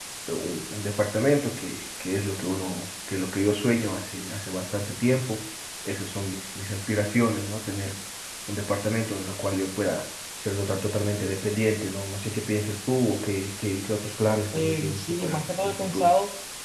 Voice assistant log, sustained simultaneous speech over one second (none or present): present